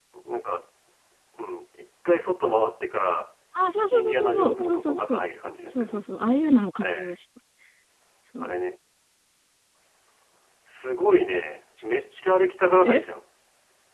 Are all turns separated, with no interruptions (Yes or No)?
No